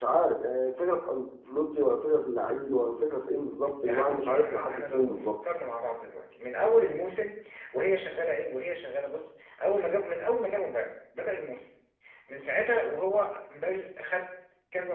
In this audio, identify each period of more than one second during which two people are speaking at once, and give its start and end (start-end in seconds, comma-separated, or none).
3.9-5.4